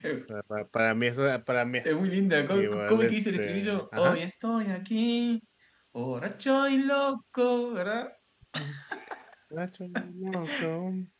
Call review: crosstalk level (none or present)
present